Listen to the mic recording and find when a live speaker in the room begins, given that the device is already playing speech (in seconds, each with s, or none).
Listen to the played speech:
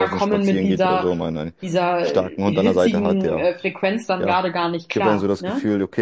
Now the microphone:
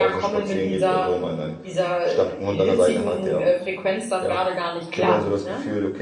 5.0 s